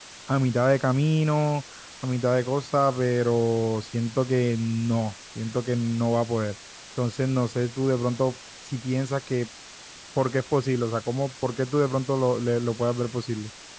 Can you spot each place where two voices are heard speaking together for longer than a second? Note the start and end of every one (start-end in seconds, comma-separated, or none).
none